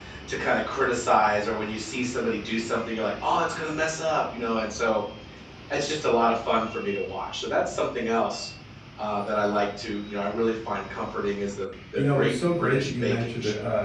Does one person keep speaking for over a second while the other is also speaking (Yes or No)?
Yes